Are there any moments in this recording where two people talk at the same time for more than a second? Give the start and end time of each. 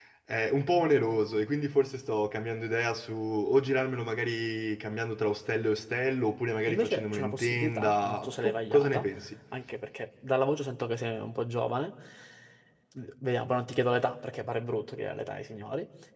6.7-9.1

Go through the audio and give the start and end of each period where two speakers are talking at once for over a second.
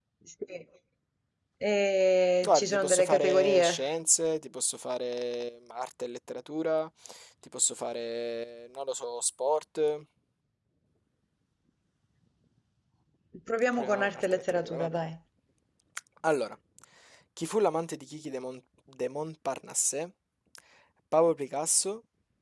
2.4-3.8, 13.7-15.1

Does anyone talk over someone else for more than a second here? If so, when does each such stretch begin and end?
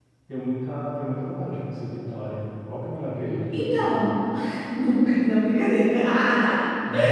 none

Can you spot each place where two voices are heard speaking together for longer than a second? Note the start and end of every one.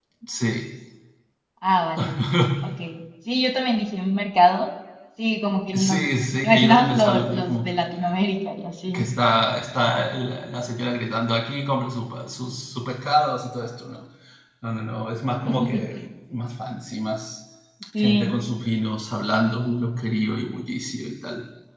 6.4-7.7

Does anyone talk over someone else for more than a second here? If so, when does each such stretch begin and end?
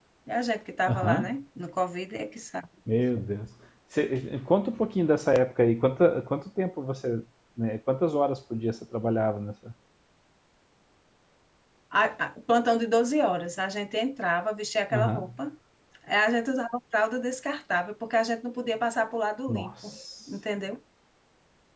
none

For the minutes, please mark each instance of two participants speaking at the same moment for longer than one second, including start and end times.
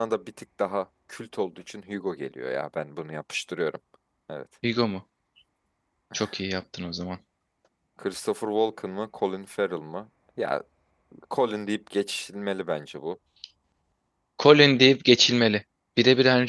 none

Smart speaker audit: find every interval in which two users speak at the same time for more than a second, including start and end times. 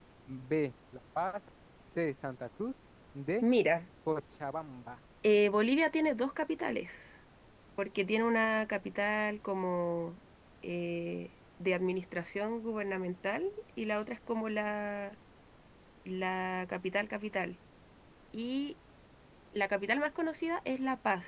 none

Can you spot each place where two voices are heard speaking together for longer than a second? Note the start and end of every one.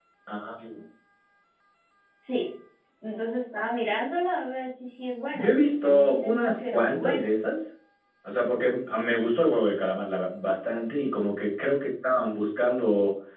5.3-7.3

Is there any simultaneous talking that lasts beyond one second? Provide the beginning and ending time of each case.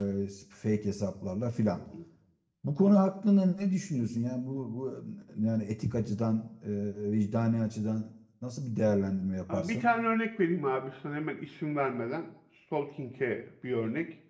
none

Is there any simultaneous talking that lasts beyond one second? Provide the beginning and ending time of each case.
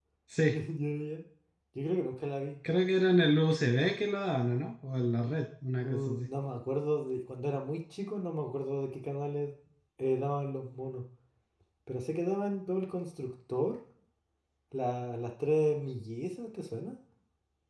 none

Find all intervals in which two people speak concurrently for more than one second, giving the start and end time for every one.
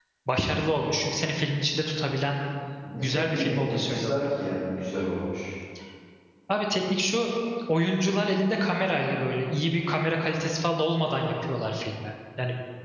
3.0-4.2

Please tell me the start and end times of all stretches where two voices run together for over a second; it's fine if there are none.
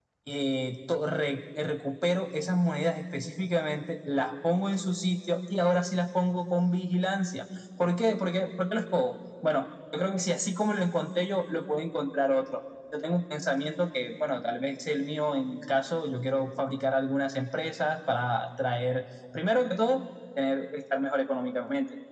none

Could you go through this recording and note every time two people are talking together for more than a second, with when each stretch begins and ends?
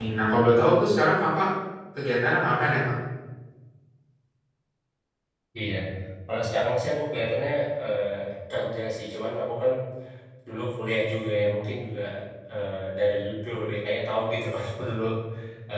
none

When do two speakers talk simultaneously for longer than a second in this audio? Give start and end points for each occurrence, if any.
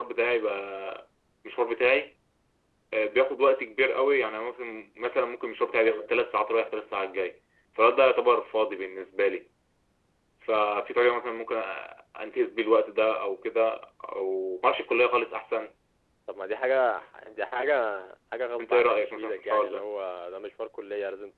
18.6-19.8

